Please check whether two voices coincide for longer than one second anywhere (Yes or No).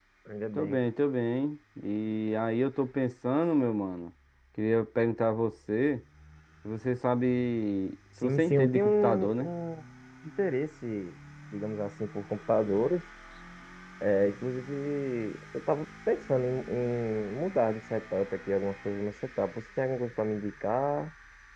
Yes